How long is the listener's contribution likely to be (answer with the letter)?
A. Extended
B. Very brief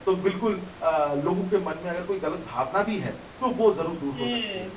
A